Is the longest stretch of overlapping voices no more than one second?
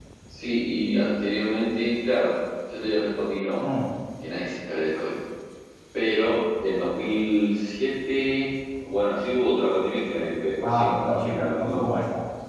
No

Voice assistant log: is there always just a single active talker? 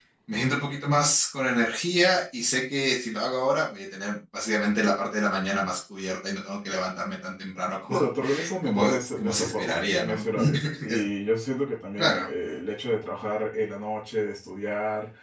No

